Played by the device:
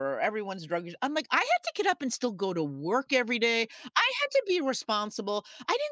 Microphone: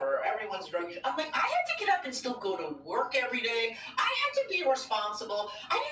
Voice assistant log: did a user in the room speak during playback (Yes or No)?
No